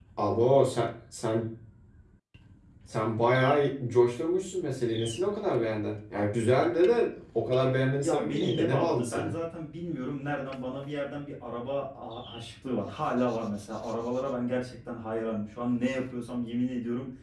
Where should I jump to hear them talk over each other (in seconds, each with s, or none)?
8.0 s